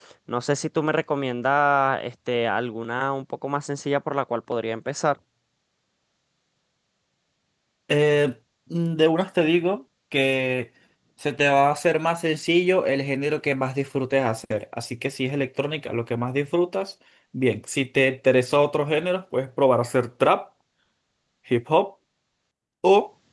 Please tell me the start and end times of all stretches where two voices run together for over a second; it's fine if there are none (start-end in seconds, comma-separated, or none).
none